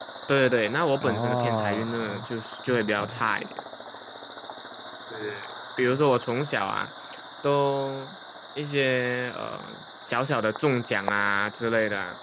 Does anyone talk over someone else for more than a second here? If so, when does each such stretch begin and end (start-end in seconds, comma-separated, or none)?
1.0-2.3